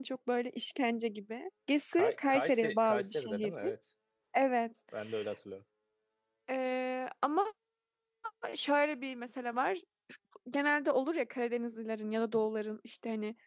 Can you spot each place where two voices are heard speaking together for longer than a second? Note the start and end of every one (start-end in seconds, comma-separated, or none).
1.9-3.5